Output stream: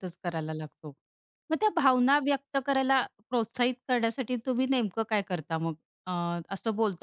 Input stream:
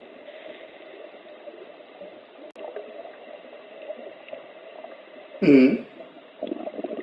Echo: none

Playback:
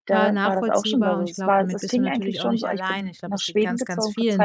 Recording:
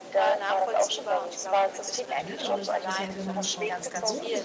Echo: present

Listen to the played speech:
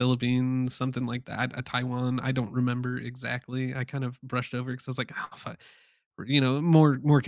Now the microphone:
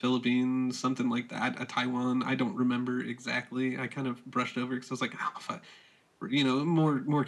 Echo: present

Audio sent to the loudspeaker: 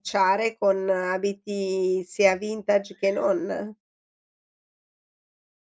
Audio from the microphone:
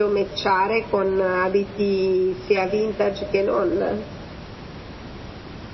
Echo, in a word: present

